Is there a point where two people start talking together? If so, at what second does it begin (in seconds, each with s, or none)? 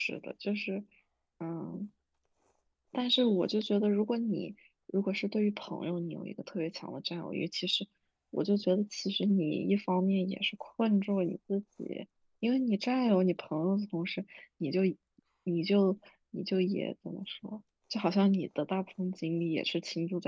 none